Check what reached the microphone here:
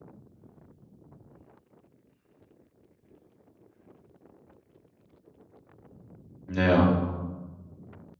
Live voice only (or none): Ja.